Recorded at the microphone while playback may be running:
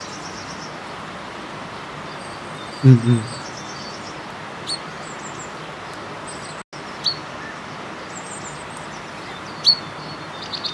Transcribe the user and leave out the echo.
うんうん。

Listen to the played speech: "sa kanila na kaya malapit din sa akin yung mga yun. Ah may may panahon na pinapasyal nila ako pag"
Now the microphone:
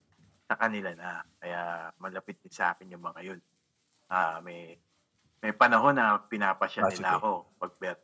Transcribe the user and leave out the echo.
Ah, sige.

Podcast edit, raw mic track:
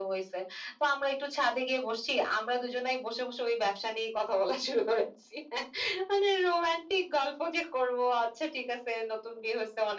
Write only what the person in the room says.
none

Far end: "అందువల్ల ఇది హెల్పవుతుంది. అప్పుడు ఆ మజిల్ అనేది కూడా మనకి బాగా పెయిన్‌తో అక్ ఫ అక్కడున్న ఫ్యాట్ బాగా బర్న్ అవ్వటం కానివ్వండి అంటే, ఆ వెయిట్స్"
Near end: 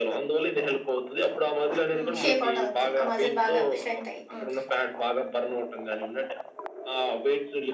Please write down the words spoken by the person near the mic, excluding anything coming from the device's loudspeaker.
ఆ! షేప్ అవుట్ అవుద్దు. ఆ మజిల్ బాగా స్ట్రెంతయ్యి. హ్మ్.

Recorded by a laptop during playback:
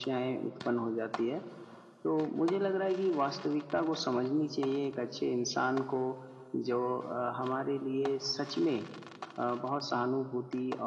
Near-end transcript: none

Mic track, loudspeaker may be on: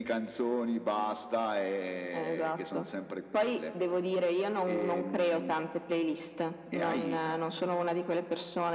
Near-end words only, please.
none

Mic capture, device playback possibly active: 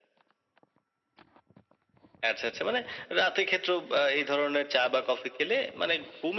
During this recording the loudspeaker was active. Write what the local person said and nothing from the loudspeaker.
none

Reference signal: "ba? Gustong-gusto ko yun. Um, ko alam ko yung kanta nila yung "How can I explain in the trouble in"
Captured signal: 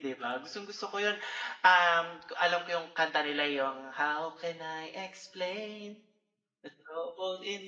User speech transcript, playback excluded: none

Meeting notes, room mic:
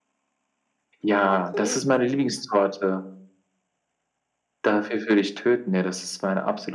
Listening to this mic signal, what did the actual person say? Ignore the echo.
Okay.

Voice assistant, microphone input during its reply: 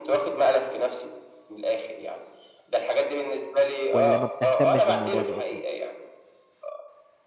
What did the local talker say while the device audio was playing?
والّا ما بتهتمّش بالموضوع ده أصلًا؟

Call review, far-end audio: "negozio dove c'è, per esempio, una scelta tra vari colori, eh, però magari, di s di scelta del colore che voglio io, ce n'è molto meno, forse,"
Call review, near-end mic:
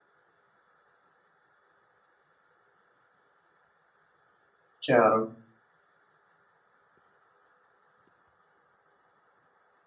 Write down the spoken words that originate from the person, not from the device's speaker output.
Chiaro.

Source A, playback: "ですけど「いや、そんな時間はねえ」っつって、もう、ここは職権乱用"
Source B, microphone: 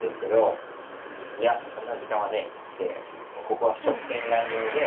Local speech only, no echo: うん。

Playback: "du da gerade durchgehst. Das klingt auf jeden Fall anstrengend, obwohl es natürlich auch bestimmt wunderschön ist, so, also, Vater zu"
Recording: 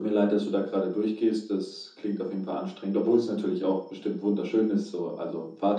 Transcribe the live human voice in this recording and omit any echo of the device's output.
none

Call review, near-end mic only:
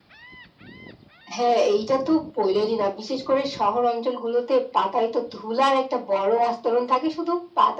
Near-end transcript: none

